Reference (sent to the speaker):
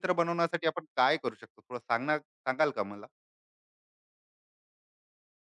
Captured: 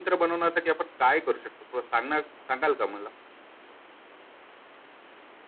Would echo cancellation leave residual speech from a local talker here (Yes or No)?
No